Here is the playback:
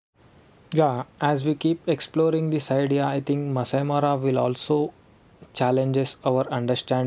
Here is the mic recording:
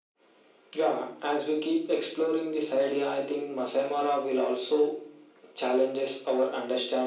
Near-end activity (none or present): none